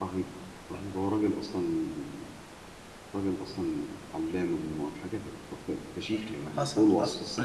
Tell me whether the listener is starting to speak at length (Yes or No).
Yes